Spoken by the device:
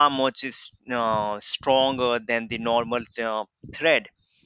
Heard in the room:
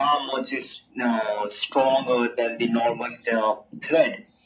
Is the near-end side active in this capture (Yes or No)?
No